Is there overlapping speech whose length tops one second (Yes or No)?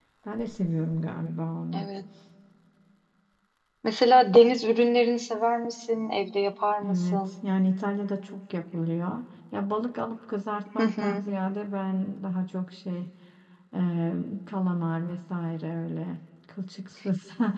No